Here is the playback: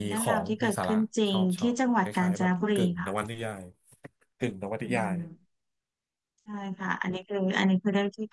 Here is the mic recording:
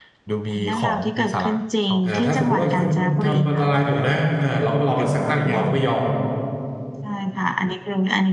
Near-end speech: present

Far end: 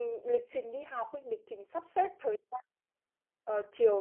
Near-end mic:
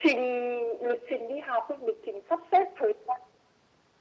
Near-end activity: none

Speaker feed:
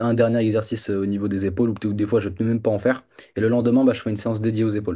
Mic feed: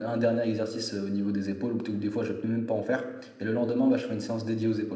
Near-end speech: none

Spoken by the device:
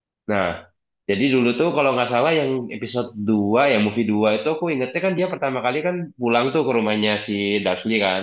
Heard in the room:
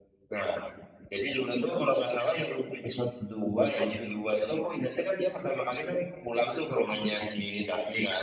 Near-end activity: none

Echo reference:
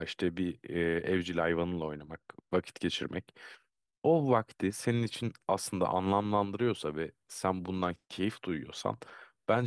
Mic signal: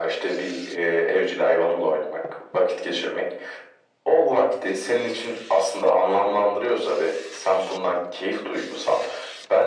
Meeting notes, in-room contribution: none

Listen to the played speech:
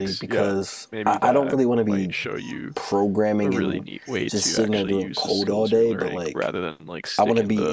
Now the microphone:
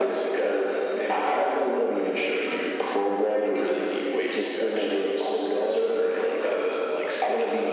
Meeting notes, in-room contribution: none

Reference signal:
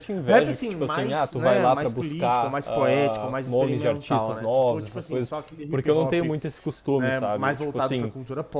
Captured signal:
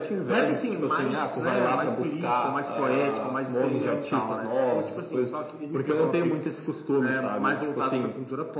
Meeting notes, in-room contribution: none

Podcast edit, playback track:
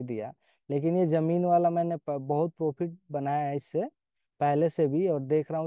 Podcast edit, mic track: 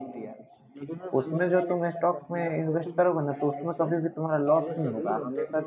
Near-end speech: present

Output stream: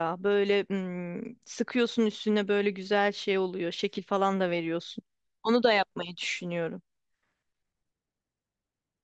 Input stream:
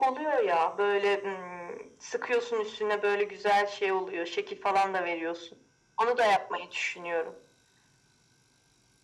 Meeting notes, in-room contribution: none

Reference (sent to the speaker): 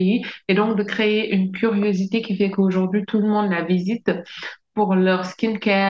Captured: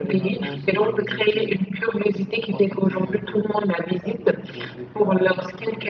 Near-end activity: present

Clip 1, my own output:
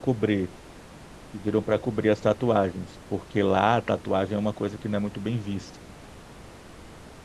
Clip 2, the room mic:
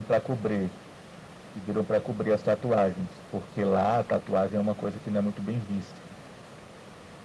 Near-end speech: none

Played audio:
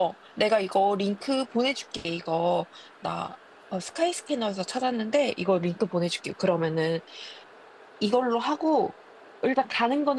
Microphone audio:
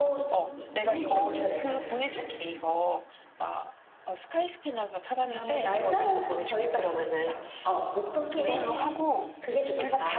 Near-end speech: present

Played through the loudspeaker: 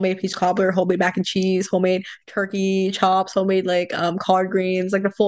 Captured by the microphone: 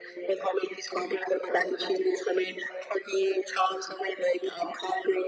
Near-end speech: none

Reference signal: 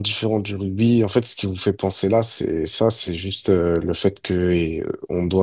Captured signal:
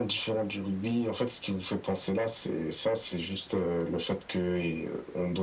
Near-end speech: none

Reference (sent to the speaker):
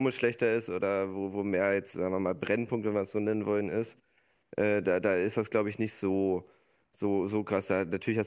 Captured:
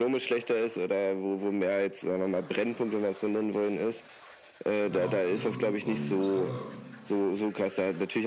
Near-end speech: present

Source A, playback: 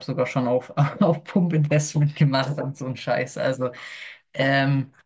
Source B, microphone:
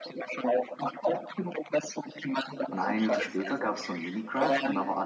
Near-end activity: present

